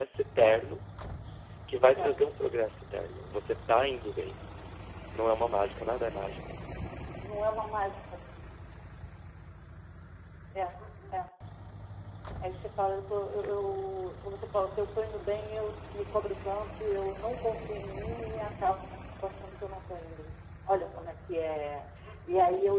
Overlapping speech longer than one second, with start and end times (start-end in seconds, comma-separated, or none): none